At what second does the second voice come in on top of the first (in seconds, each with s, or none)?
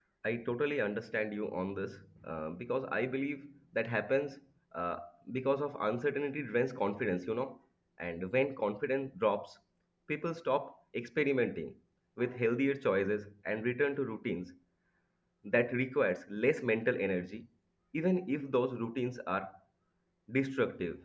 none